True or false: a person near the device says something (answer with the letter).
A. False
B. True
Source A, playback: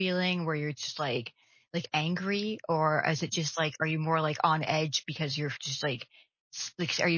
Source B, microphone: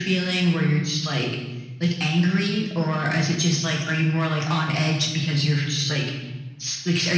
A